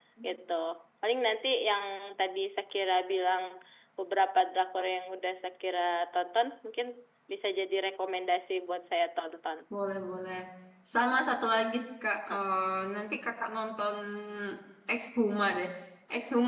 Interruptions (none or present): none